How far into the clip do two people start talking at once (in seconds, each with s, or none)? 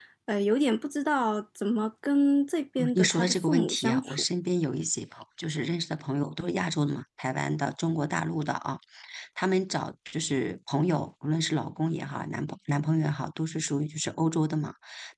2.8 s